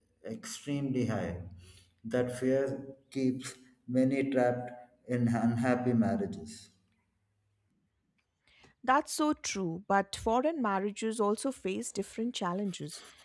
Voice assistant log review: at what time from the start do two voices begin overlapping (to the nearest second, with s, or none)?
none